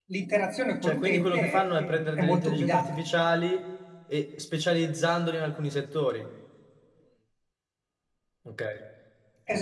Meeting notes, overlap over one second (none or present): present